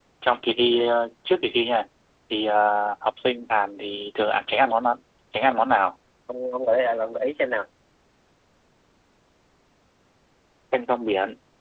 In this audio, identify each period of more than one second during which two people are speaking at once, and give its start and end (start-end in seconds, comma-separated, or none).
none